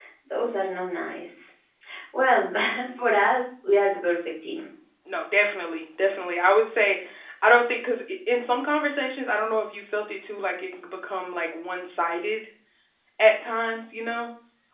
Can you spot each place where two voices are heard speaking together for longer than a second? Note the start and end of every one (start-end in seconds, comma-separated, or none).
none